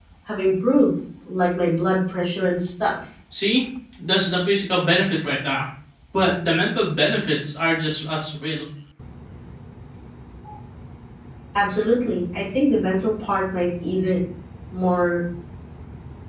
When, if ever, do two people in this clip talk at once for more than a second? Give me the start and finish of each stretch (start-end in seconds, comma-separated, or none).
none